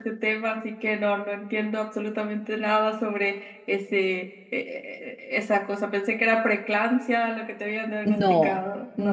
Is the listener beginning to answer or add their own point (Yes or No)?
Yes